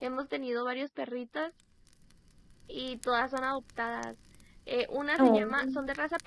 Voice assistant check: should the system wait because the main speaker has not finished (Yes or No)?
Yes